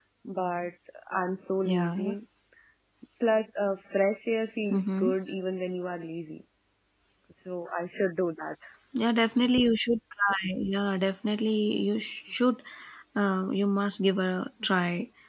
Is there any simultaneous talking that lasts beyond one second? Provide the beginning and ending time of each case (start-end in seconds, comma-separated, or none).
none